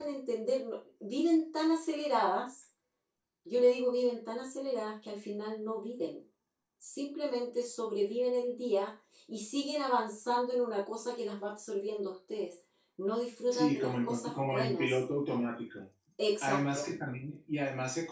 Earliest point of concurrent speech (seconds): 13.5 s

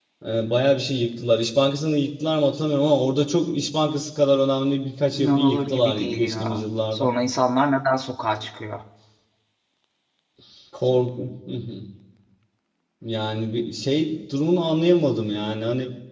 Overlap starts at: 5.1 s

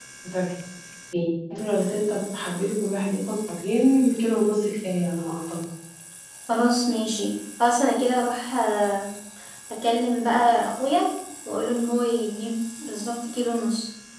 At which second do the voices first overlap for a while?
none

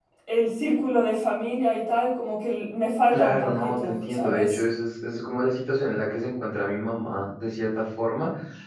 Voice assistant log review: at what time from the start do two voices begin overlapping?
3.1 s

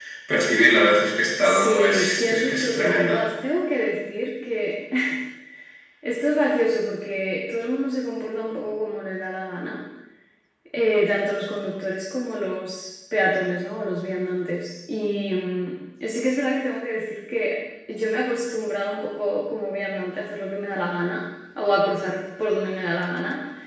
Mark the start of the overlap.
1.4 s

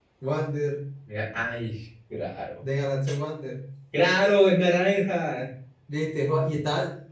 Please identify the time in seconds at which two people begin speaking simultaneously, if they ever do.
none

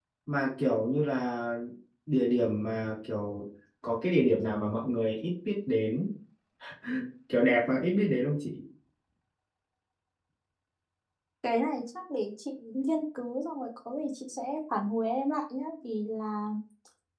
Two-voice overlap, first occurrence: none

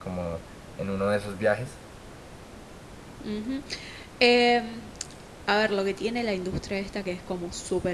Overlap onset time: none

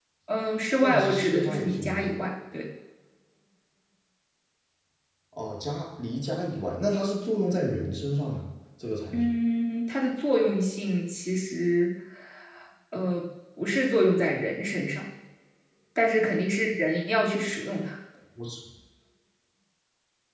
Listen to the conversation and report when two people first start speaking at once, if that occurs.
0.8 s

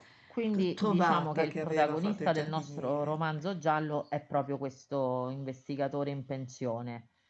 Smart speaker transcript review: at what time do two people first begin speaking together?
0.5 s

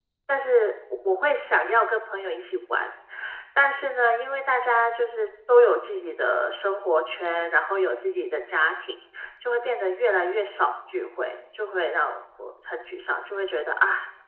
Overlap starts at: none

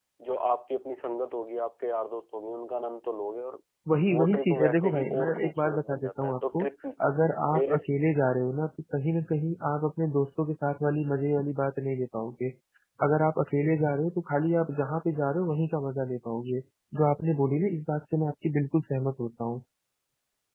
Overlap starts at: 4.1 s

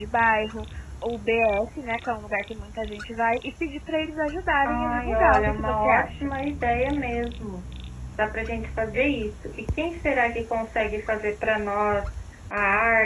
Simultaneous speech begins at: 4.6 s

